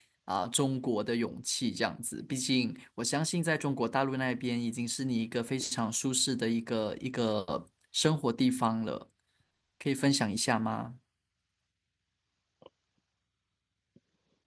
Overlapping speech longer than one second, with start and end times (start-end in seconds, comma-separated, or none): none